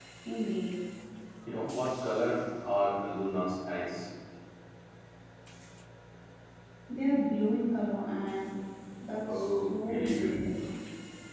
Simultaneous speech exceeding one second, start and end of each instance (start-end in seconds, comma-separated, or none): 9.2-10.6